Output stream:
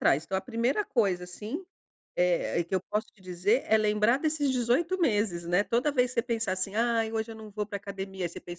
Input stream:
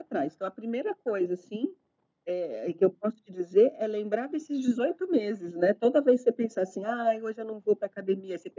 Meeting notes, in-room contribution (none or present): none